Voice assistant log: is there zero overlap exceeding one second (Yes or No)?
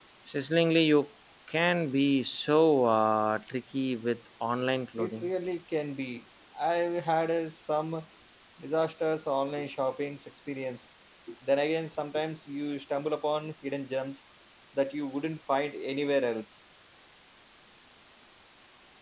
Yes